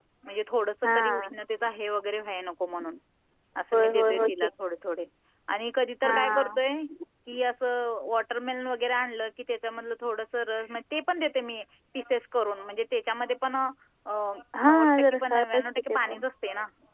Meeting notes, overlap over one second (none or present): present